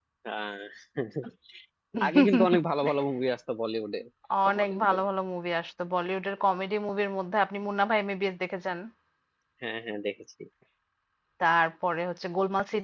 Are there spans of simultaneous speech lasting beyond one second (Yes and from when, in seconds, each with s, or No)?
No